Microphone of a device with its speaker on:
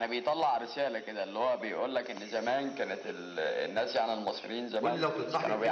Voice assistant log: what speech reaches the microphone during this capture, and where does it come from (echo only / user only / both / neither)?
both